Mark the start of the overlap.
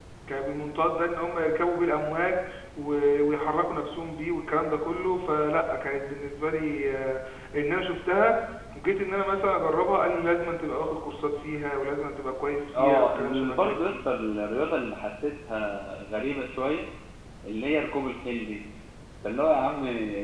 12.7 s

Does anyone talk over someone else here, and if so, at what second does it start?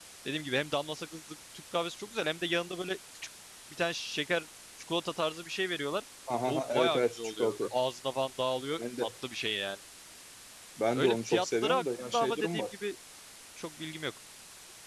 6.5 s

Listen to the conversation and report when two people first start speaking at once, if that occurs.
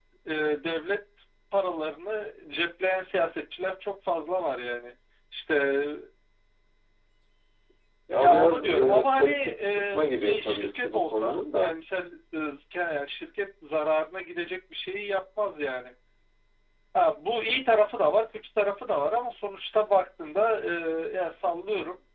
8.2 s

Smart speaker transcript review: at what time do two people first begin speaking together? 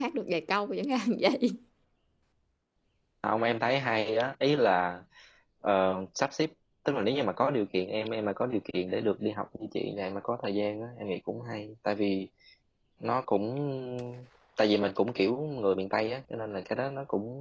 none

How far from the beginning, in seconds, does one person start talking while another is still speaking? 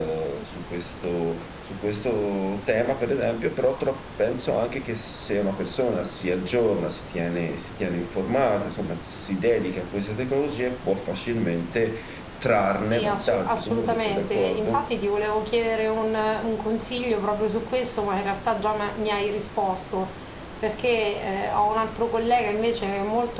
12.8 s

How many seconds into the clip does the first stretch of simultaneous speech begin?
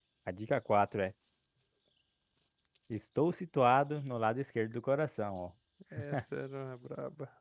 none

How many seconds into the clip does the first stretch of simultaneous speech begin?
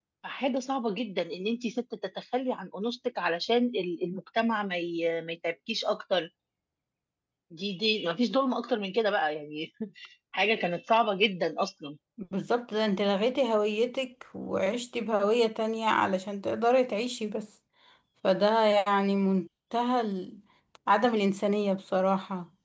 none

